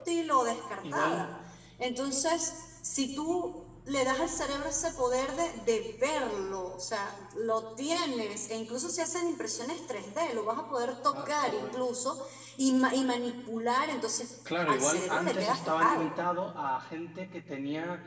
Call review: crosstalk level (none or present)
present